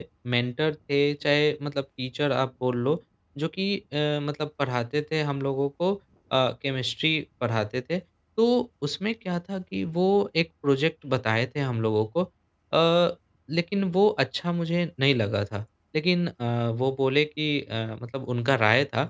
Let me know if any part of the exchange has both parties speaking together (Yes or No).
No